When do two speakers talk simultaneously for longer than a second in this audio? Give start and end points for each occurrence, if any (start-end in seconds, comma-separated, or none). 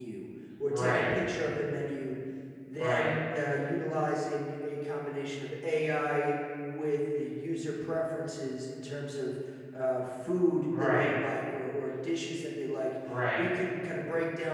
none